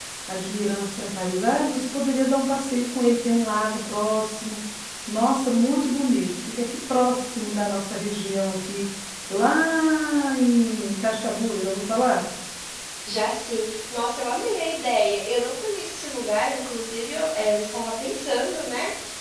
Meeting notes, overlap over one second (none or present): none